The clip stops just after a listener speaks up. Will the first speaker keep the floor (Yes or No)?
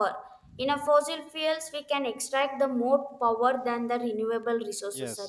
No